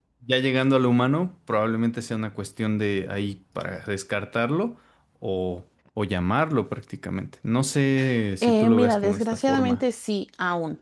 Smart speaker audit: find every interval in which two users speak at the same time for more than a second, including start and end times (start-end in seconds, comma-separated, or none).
8.4-9.8